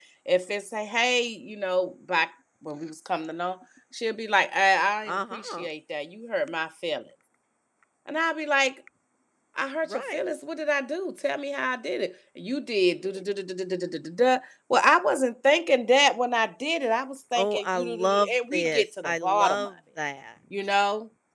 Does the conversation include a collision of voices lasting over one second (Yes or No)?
Yes